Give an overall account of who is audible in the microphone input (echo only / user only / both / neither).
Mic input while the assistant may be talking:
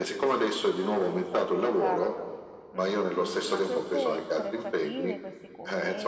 both